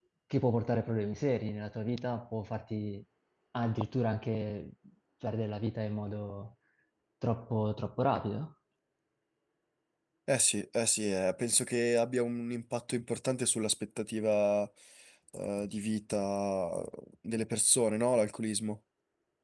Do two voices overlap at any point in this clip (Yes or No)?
No